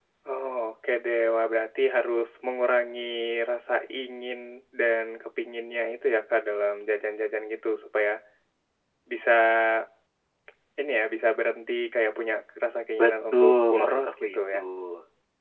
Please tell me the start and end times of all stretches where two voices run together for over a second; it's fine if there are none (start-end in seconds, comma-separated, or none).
13.0-14.6